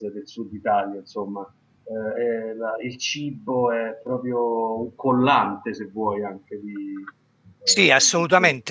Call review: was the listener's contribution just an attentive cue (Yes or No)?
No